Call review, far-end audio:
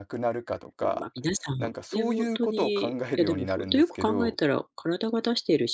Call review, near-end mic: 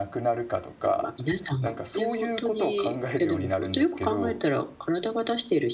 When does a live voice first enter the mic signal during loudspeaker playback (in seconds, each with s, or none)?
none